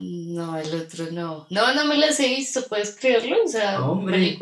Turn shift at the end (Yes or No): No